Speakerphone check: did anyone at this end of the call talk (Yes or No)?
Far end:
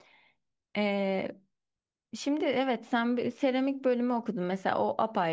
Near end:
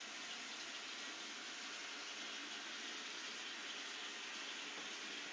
No